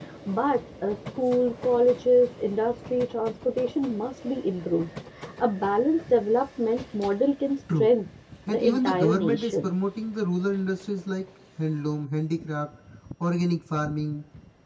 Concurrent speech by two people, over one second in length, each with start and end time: 8.5-9.7

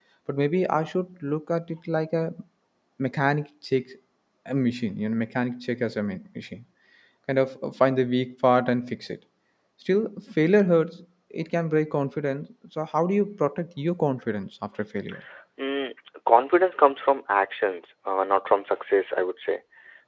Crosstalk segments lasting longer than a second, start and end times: none

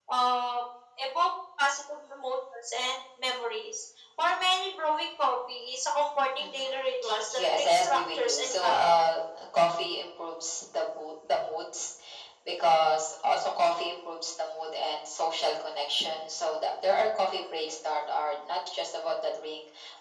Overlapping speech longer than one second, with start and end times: 7.3-9.0

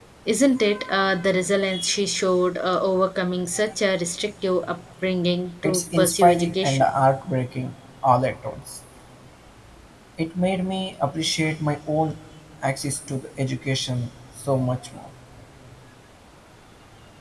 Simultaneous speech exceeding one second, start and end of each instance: 5.6-6.9

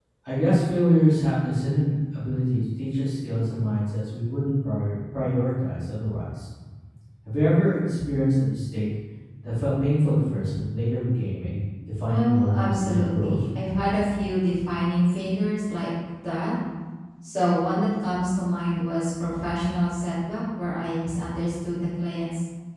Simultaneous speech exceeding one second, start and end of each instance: 12.1-13.4

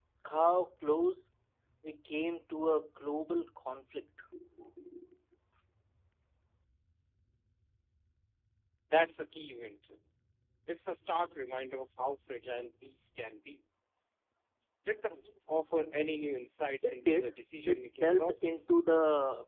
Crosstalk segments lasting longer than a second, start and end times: 16.8-18.7

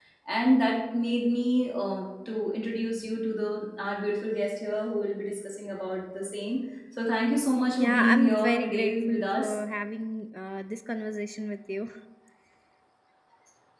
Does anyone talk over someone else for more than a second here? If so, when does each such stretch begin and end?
7.8-9.6

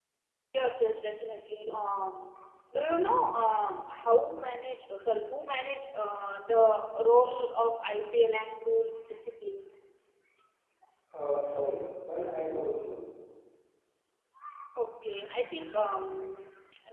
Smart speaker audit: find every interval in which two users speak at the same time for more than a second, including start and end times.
none

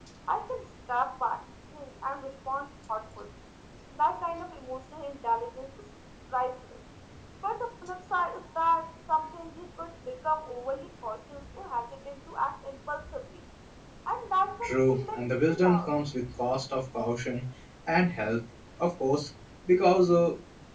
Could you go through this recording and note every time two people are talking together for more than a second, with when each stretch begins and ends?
14.6-15.9

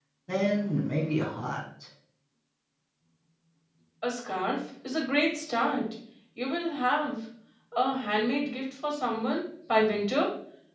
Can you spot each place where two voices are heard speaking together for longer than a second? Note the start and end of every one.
none

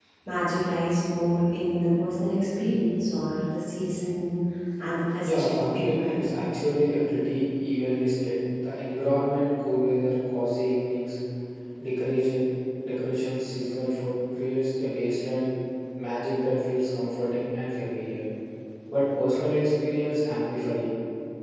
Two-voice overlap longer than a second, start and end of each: 5.2-6.4

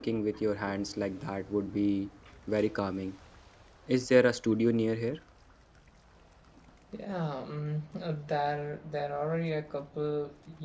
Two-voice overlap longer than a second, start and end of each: none

